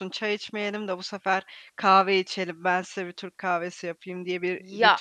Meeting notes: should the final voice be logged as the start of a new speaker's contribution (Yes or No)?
Yes